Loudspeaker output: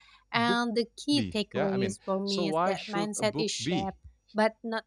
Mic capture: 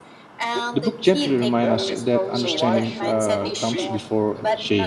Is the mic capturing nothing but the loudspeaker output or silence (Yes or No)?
No